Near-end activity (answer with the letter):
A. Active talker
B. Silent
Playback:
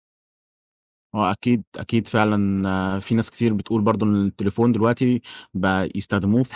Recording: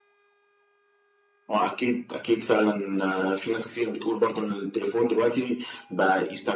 B